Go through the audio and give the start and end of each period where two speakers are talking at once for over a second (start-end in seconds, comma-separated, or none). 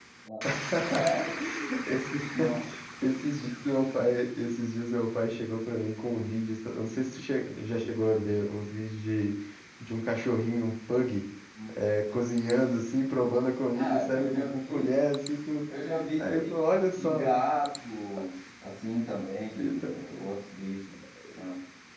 13.7-15.0